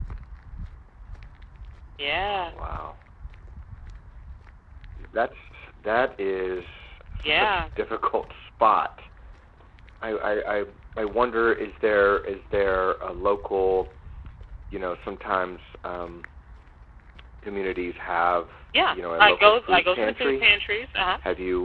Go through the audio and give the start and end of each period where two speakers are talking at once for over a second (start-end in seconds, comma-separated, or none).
18.9-20.4